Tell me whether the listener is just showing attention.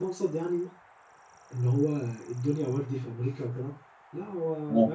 Yes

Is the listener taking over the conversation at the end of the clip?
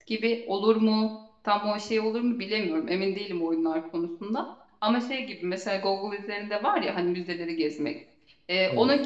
No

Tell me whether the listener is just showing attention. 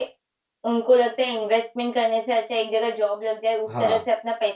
Yes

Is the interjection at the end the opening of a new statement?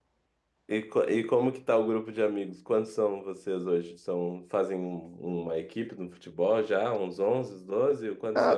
Yes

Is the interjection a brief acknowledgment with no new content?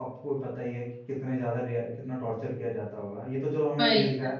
Yes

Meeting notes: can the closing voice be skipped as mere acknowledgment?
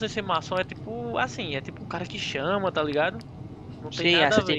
No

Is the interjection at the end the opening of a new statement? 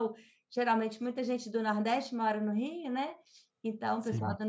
No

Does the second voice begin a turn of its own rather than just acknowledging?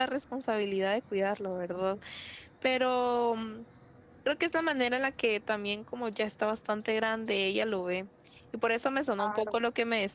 No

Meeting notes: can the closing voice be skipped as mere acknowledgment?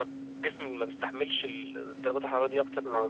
No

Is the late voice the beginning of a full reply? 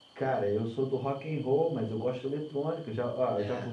No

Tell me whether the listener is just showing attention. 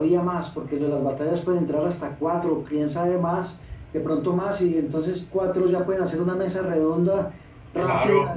Yes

